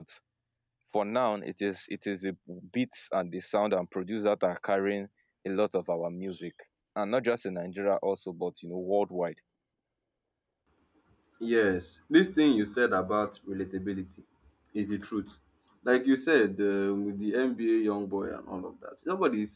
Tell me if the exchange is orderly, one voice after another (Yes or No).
Yes